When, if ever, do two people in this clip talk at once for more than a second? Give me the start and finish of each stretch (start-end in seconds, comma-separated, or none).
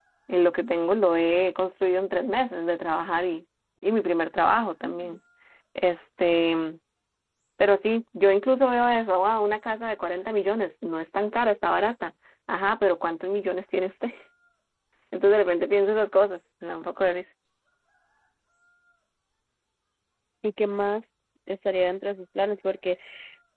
none